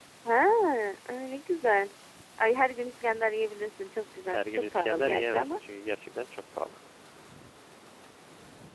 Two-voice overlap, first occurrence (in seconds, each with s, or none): 4.3 s